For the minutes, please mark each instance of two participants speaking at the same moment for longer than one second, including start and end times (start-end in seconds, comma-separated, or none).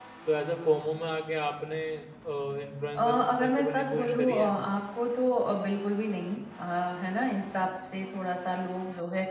3.0-4.5